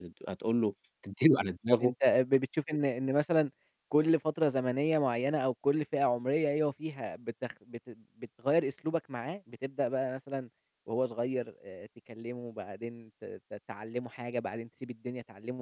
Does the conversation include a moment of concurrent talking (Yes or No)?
No